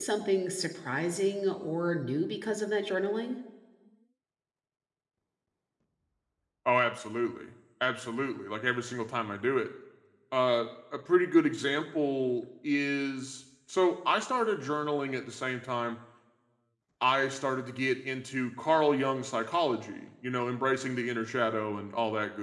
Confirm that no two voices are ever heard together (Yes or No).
Yes